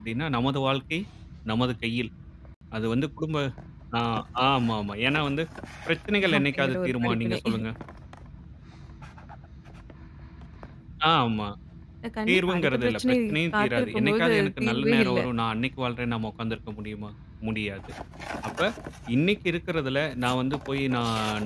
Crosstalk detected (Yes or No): Yes